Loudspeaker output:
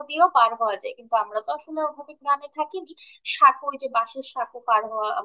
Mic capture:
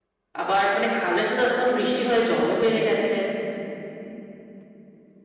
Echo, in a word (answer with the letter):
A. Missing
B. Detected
A